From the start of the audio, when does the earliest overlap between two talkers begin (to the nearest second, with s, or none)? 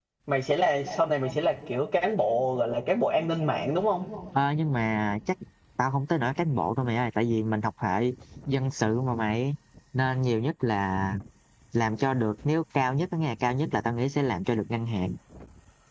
none